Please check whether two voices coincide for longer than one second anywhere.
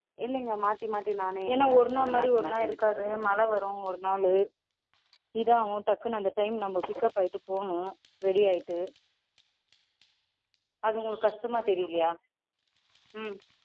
Yes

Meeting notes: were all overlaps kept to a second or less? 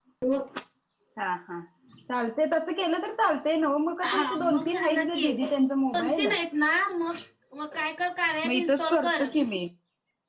No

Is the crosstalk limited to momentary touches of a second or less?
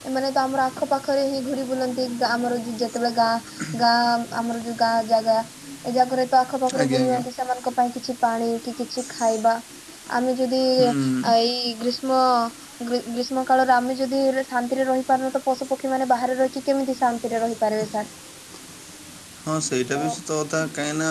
Yes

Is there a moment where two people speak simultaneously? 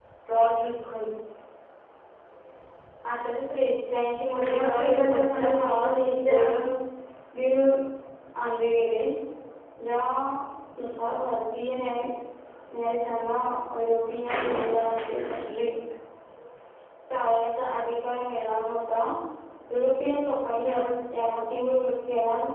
Yes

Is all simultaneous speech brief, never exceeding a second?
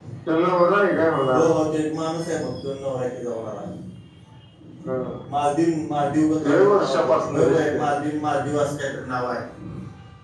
No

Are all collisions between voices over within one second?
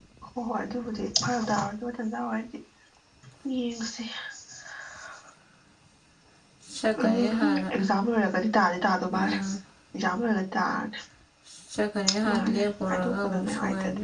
No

